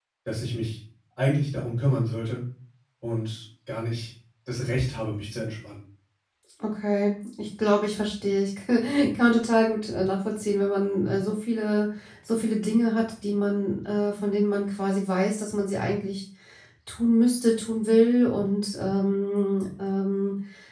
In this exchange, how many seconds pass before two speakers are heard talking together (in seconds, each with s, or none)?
none